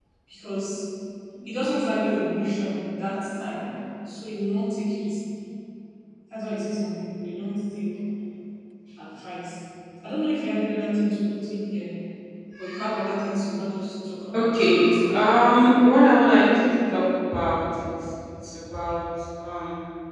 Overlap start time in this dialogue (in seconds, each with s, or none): 14.3 s